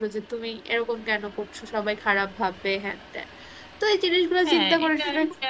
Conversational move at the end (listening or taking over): taking over